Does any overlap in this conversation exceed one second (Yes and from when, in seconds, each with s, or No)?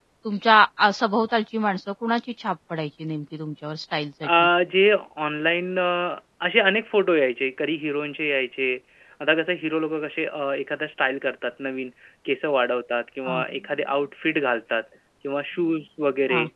No